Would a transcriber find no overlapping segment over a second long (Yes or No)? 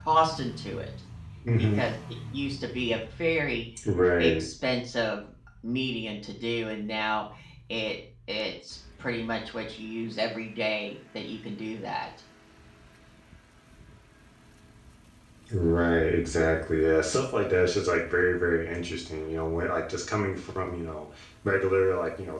Yes